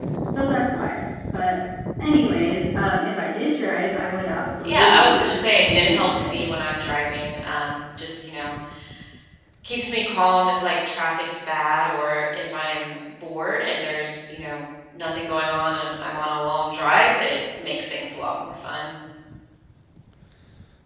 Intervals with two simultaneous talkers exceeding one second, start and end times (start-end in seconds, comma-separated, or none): 4.6-6.3